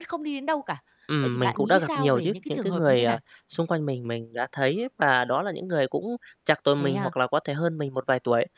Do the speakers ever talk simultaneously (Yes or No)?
Yes